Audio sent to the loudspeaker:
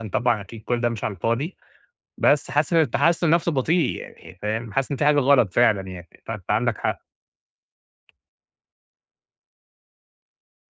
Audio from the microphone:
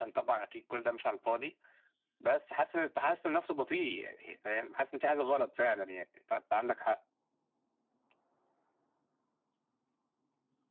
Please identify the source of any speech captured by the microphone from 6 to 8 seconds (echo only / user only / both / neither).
echo only